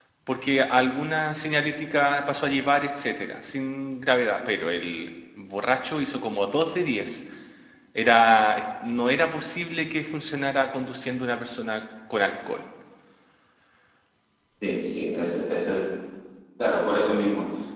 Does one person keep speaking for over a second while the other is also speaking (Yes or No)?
No